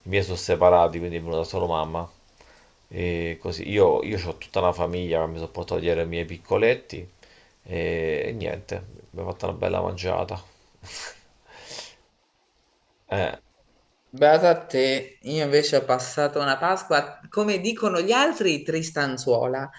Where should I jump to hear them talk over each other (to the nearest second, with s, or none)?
none